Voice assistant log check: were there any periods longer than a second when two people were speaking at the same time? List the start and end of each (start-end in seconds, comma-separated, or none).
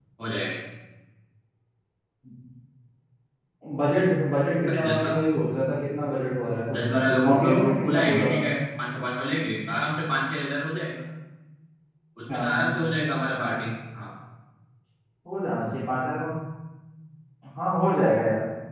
6.7-8.5